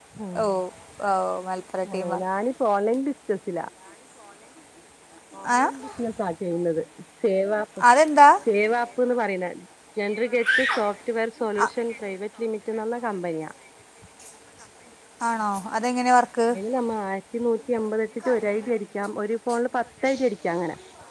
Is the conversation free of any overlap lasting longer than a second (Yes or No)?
Yes